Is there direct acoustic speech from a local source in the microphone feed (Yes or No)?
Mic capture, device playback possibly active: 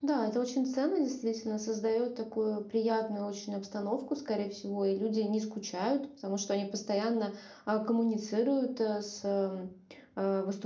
Yes